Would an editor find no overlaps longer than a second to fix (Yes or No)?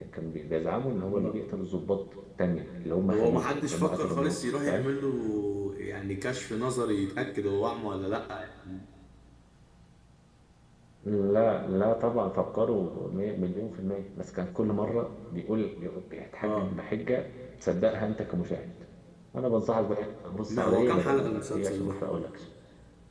No